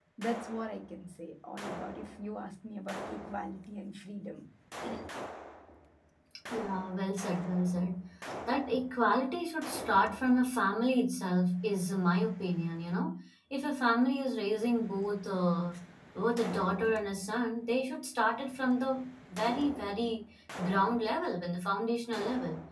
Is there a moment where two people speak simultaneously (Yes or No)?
No